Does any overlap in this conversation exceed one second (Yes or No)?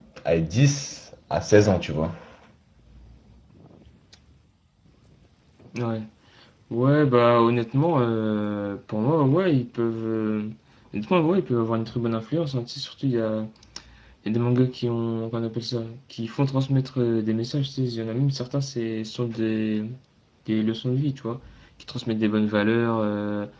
No